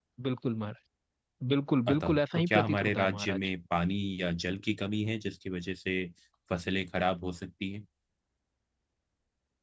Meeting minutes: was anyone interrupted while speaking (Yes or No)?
Yes